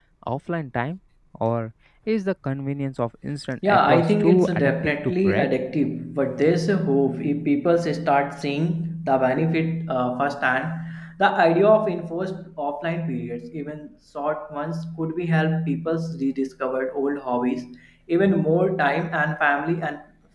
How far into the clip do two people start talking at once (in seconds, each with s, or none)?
3.6 s